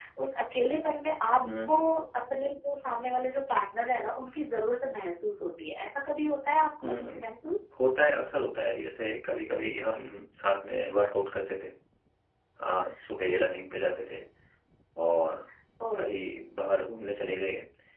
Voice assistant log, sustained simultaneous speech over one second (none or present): none